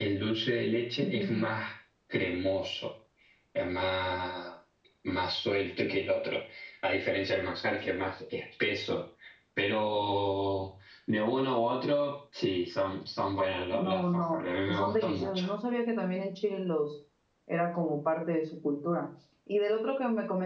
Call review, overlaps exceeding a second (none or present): present